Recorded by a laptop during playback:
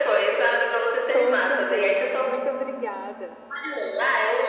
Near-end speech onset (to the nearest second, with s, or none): 1 s